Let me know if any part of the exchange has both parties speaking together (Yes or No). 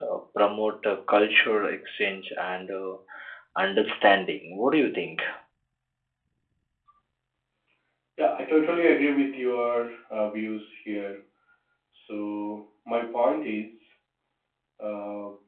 No